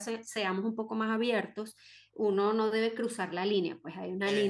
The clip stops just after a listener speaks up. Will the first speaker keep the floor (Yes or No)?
Yes